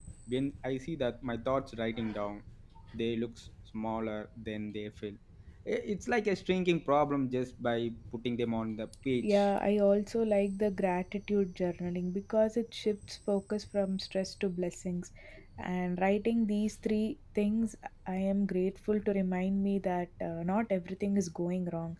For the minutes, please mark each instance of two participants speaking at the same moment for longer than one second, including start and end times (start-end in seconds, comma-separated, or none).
none